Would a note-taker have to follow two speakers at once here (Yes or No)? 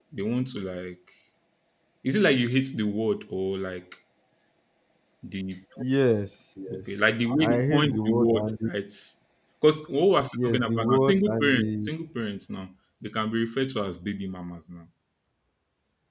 Yes